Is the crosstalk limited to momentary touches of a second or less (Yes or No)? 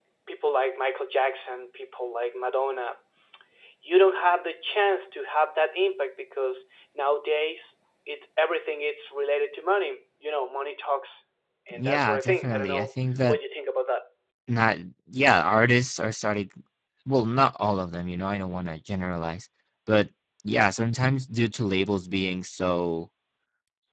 No